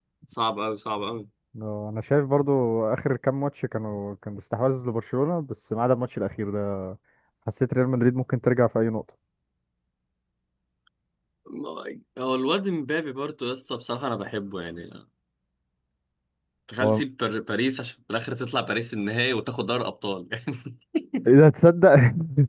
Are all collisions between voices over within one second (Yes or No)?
Yes